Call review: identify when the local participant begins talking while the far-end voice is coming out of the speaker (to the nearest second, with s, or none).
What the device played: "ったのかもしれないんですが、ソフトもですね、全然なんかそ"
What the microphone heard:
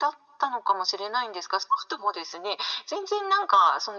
none